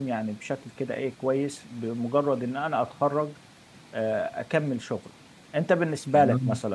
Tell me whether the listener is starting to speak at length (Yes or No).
No